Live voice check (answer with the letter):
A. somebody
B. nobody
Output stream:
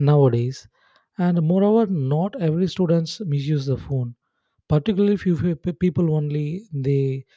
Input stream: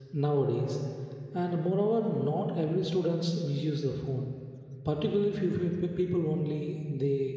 B